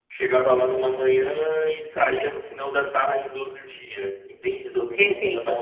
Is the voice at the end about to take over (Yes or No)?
Yes